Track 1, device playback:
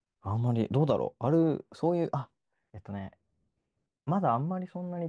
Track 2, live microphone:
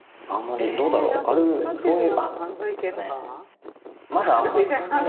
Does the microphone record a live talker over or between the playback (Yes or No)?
Yes